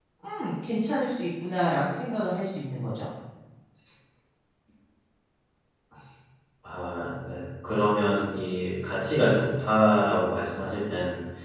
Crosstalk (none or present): none